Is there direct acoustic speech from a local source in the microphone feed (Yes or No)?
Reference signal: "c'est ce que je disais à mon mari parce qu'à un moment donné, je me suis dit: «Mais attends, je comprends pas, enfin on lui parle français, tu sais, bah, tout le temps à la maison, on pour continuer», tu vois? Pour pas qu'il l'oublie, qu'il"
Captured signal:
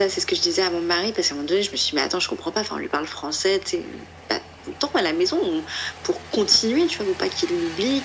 No